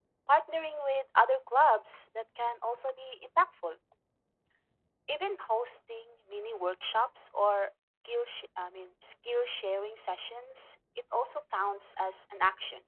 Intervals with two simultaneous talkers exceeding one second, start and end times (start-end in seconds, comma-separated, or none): none